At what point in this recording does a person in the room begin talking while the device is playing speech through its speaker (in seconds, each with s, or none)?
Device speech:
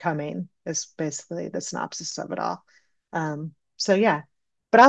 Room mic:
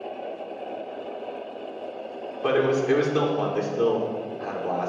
2.4 s